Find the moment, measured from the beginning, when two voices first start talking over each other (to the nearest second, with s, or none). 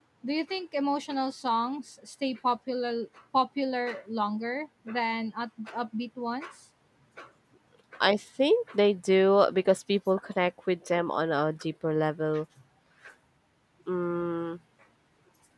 none